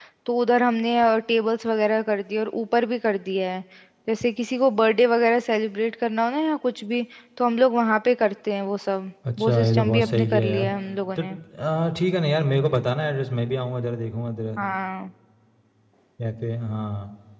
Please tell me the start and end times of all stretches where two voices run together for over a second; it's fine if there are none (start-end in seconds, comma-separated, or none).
9.4-10.7